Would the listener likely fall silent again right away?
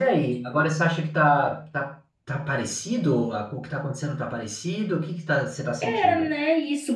No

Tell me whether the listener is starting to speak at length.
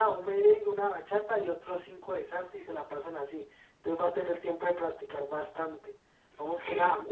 No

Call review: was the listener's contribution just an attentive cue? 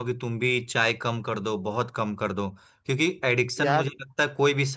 Yes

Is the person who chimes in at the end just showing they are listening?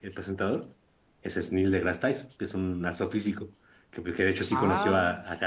Yes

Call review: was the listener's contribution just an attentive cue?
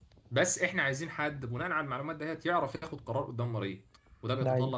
Yes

